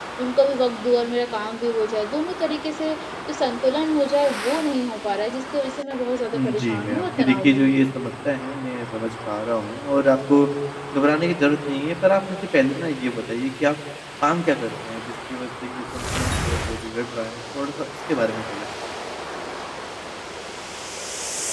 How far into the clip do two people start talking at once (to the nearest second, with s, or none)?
6 s